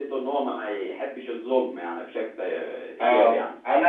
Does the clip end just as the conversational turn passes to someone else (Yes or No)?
Yes